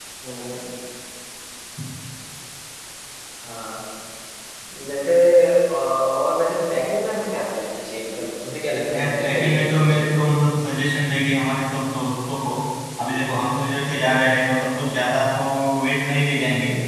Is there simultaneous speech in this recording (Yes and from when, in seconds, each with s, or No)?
Yes, from 8.9 s